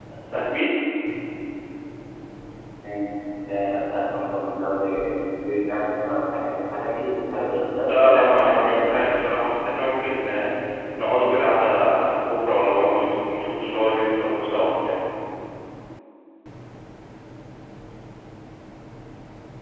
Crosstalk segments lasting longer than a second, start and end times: 7.9-9.1

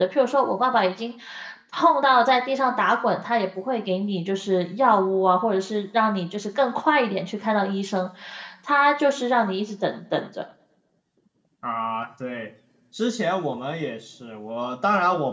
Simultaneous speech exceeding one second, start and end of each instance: none

